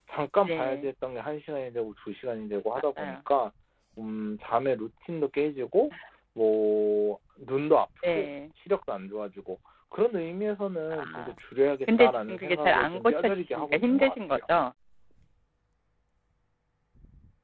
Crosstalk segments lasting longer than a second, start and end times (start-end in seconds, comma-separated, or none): 12.0-14.4